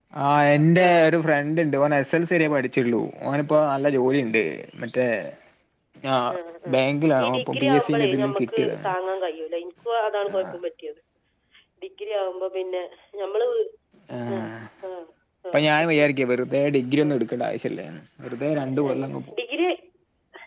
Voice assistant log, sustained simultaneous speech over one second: present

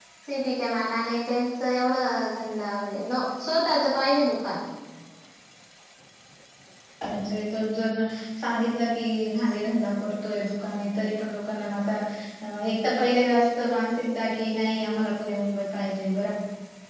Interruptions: none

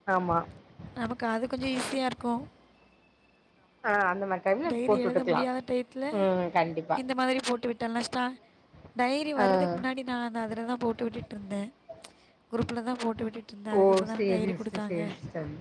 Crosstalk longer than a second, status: present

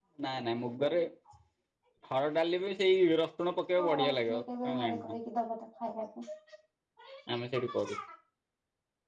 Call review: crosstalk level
present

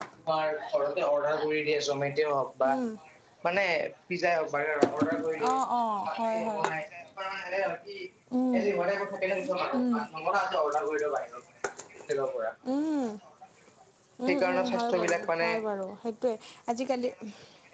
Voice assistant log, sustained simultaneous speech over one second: present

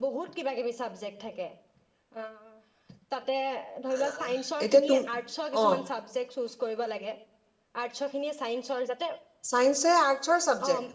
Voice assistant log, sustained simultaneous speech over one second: none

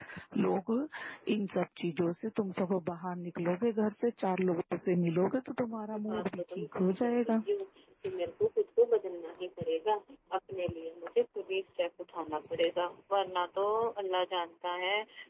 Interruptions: present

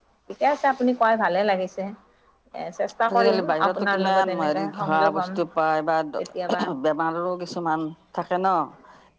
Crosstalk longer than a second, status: present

